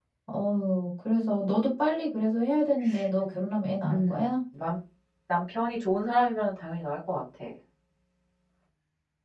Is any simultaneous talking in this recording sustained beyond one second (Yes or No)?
No